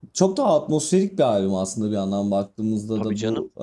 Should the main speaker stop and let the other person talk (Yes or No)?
No